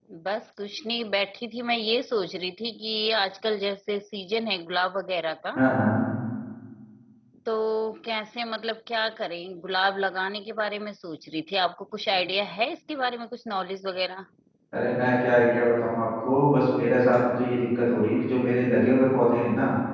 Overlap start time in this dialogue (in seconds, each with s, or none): none